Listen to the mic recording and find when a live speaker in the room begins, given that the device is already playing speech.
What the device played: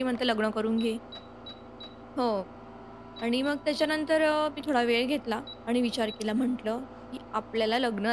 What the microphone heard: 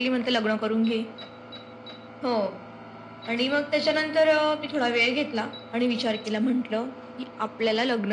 none

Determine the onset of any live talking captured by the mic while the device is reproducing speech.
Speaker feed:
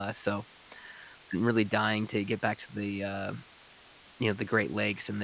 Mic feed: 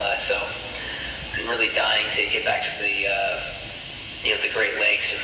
none

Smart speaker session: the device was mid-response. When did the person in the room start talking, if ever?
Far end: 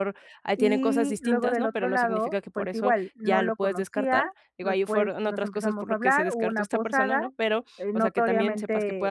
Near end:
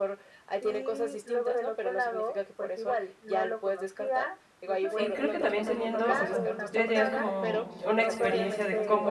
5 s

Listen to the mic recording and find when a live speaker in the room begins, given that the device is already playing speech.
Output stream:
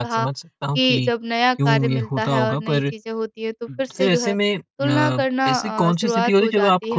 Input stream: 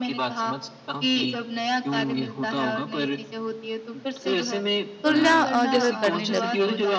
5 s

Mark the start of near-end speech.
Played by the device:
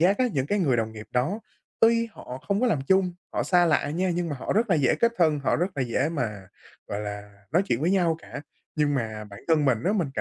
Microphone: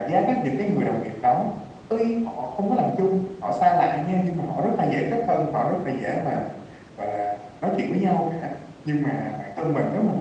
none

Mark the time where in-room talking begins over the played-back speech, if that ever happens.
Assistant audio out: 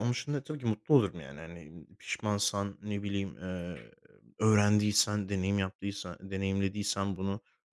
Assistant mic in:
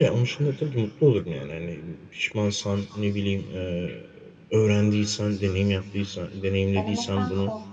7 s

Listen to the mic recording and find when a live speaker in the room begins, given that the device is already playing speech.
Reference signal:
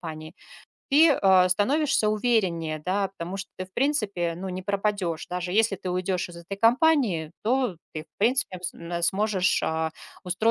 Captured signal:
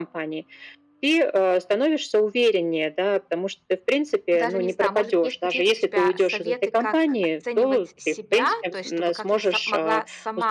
4 s

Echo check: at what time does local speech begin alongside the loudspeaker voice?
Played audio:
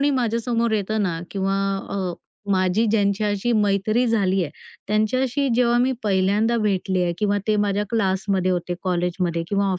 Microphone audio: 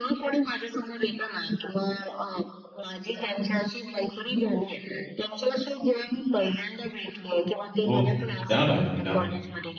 8 s

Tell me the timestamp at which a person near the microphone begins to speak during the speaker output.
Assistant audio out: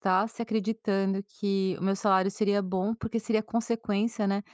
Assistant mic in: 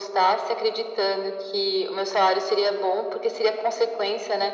none

